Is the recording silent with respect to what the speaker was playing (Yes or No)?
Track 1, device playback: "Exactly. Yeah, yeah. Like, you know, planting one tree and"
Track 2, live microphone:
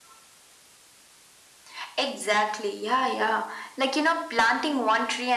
No